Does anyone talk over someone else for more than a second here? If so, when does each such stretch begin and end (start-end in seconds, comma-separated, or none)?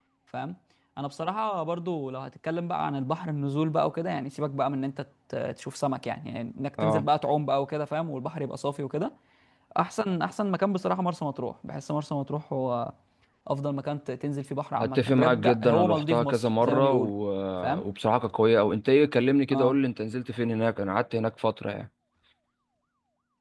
14.8-17.1